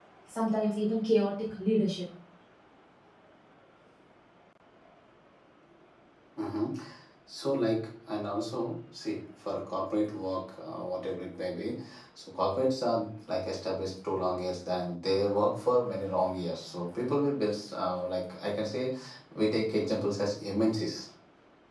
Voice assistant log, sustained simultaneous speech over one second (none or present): none